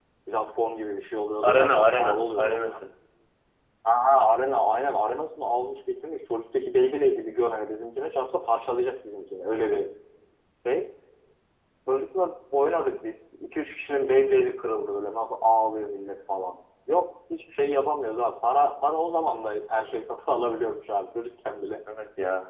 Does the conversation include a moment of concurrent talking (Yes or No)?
Yes